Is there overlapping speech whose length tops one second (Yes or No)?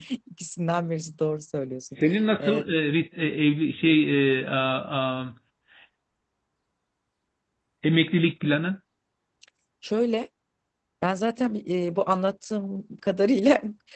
No